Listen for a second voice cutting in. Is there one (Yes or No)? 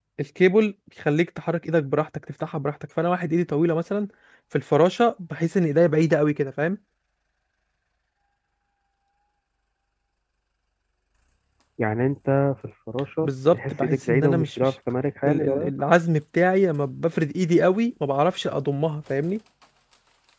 Yes